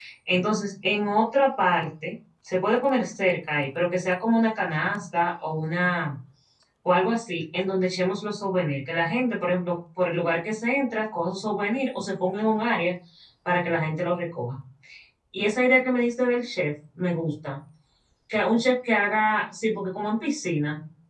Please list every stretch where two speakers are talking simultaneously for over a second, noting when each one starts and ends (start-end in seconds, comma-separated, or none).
none